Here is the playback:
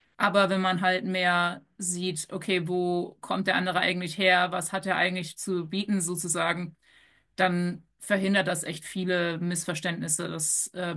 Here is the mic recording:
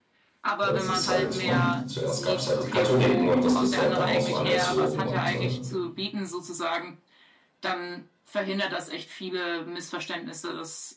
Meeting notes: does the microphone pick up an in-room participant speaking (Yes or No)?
Yes